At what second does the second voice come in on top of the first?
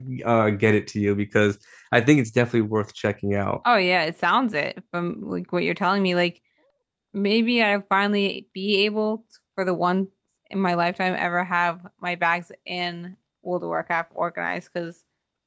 none

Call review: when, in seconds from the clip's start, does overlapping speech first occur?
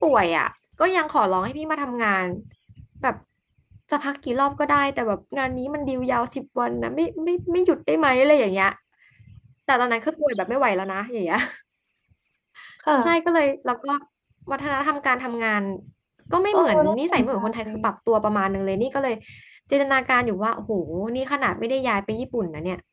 16.5 s

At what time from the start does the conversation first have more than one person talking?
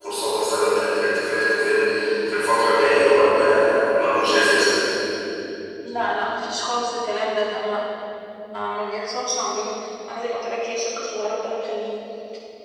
none

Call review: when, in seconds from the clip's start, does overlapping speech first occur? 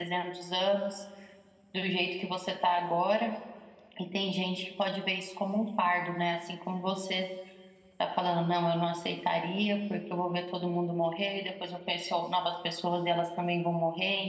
none

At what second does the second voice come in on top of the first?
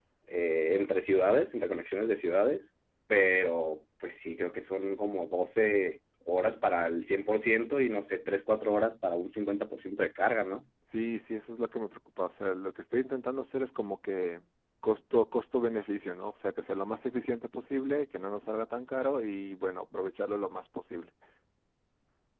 none

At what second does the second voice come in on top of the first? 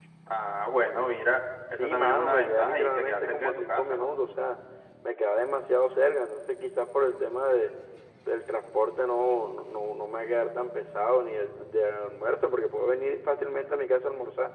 1.7 s

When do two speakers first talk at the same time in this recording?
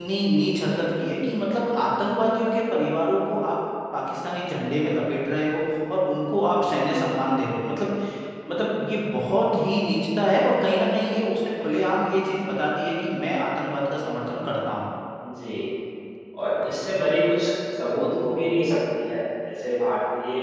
none

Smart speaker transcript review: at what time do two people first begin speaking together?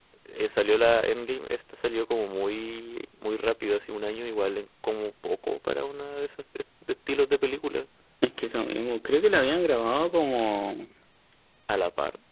none

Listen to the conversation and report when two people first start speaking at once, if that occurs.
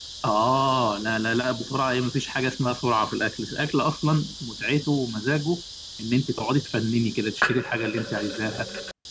none

